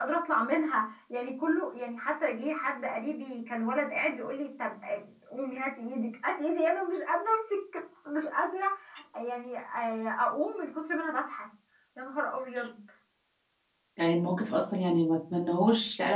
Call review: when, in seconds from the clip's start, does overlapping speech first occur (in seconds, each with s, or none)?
none